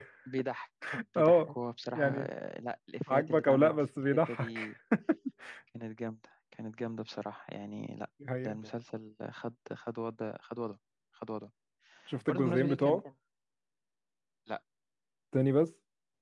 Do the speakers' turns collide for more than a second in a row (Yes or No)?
Yes